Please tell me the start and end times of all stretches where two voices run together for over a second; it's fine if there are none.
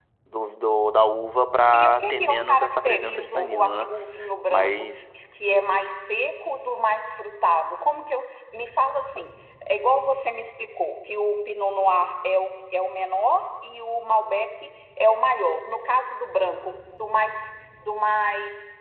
1.7-3.9

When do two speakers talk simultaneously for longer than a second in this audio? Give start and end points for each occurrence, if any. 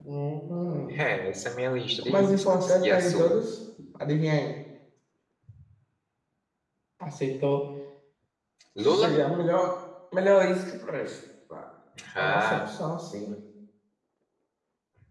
2.0-3.4

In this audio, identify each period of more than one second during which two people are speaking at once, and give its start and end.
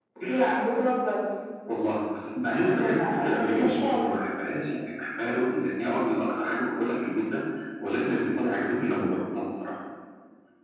2.8-4.1

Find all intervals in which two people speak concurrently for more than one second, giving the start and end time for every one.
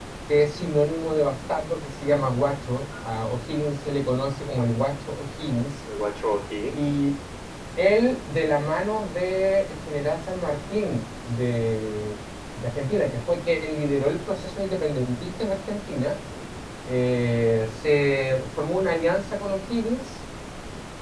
none

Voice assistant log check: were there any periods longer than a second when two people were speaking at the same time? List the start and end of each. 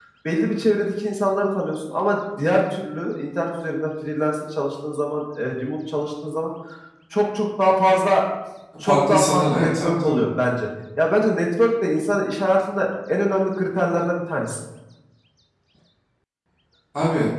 8.8-10.2

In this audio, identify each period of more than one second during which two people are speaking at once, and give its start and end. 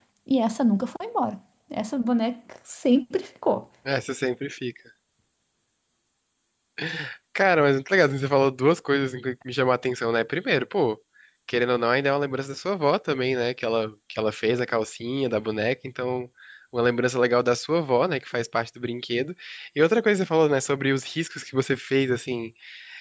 none

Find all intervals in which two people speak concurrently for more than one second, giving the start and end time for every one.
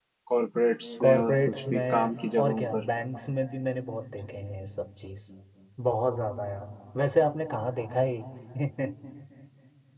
1.0-2.8

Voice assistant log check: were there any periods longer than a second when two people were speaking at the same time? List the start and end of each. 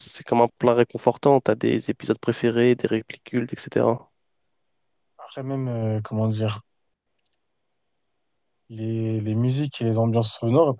none

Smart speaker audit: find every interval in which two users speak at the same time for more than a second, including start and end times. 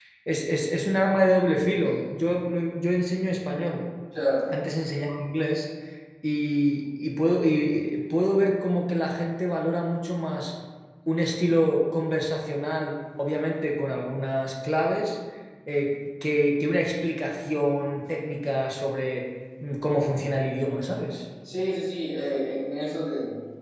none

